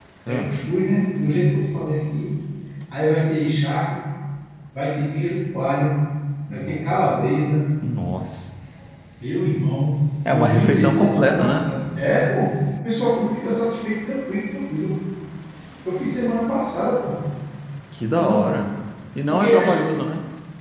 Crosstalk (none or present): present